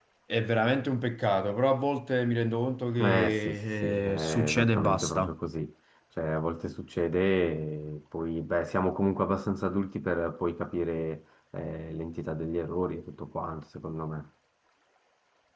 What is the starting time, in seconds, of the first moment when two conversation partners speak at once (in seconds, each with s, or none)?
3.0 s